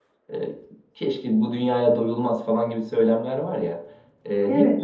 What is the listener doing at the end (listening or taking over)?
listening